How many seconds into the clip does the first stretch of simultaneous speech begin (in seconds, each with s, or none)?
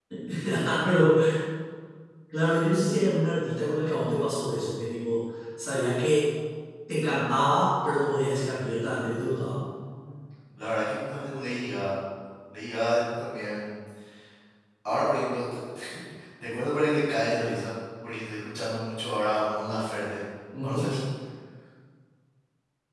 8.4 s